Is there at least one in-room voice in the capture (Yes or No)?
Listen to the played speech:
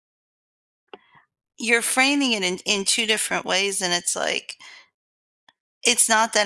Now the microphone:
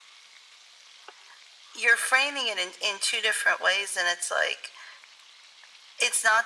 No